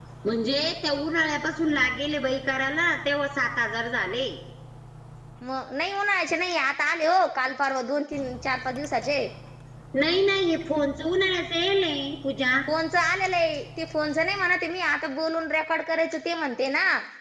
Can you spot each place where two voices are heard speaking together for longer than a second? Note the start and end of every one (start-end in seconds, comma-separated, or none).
none